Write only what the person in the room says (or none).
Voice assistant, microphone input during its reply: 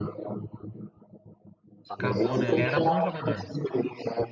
Acabou, né? Ele era bom jogador.